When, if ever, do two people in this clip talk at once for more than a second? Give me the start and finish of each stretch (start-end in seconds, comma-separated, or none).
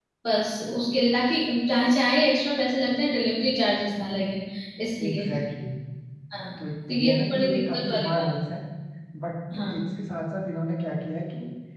6.9-8.2